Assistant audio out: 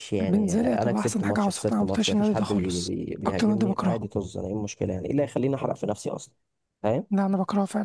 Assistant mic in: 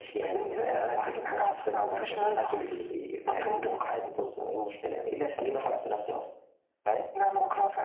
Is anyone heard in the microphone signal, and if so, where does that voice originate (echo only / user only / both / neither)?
echo only